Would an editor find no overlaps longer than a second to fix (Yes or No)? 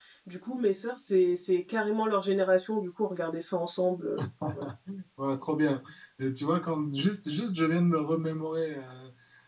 Yes